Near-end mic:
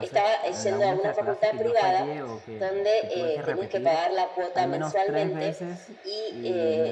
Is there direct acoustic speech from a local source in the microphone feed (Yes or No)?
Yes